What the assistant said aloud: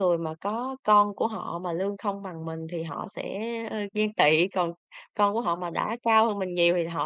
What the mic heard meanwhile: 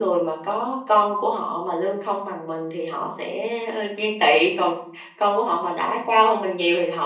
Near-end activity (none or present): none